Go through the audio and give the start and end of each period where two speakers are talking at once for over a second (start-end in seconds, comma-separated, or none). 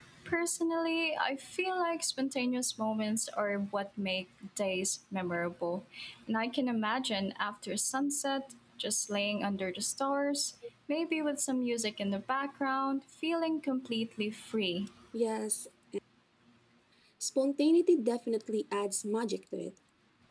none